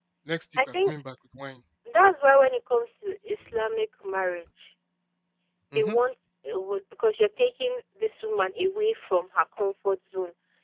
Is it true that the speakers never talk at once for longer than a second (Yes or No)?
Yes